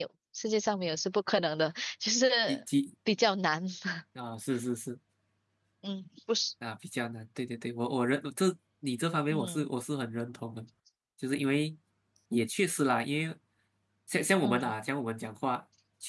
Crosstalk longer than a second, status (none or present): none